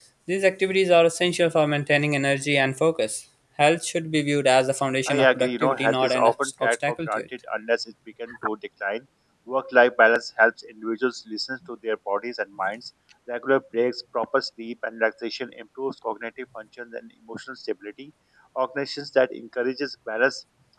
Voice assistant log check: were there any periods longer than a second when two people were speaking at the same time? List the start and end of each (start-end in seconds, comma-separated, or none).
5.1-7.2